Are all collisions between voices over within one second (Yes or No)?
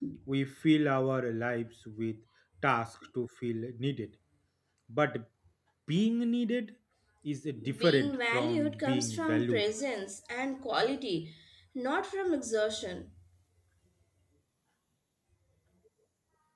No